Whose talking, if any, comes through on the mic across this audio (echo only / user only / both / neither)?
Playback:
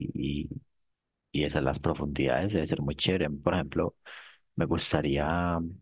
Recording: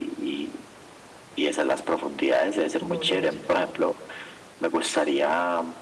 both